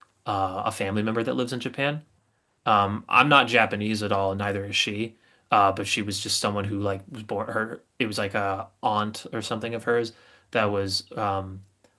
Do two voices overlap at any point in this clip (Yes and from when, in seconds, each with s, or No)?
No